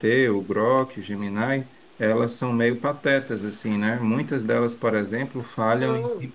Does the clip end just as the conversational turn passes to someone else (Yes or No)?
No